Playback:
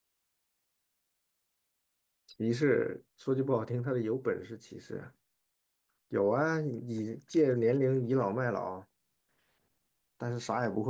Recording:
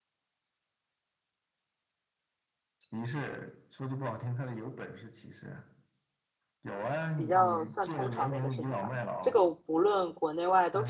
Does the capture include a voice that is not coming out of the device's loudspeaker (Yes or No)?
Yes